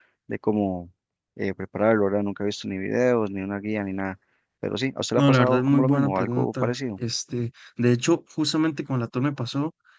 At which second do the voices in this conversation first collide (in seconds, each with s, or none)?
5.2 s